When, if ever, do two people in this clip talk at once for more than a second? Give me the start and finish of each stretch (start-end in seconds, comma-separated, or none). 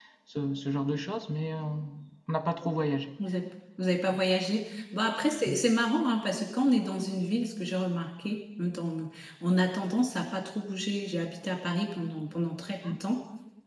none